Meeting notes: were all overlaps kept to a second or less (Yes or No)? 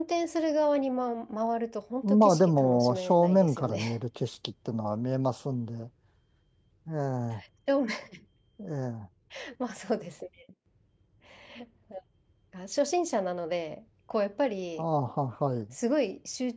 No